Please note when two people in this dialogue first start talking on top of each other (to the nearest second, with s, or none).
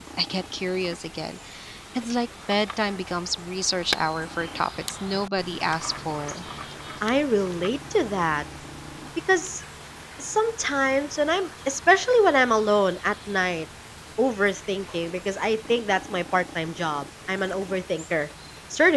none